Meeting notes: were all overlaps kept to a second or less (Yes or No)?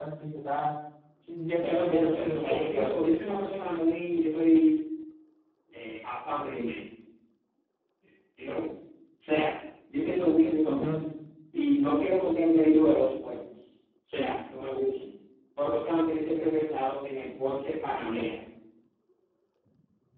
No